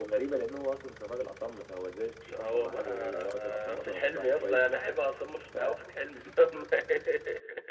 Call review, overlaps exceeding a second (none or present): present